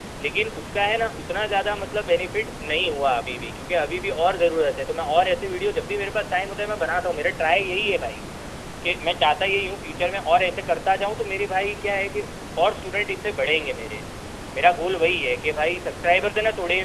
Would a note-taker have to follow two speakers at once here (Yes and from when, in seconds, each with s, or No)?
No